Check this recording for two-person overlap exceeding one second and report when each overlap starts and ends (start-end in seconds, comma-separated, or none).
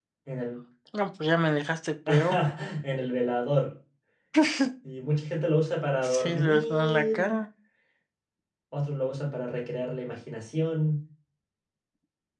6.1-7.3